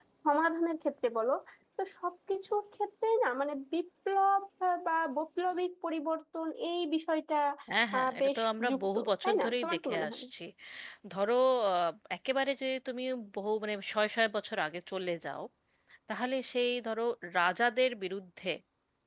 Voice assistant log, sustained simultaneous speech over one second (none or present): present